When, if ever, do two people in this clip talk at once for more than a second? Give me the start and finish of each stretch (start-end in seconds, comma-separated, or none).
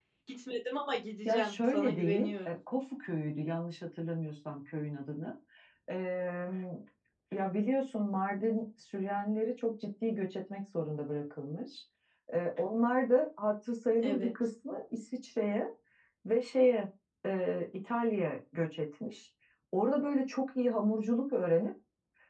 1.2-2.6